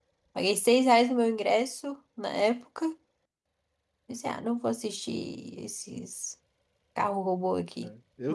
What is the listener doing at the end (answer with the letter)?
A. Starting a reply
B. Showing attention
A